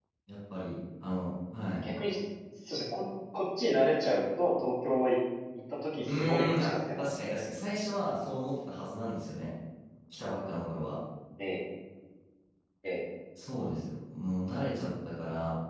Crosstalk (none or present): present